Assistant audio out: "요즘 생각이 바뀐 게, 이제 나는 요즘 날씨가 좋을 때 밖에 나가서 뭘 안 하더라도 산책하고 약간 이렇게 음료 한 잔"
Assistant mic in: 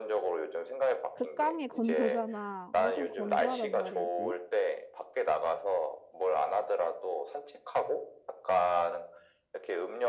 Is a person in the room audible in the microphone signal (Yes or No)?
Yes